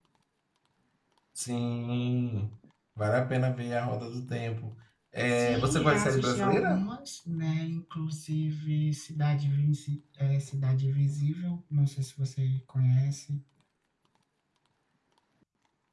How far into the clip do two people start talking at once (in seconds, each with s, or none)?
5.3 s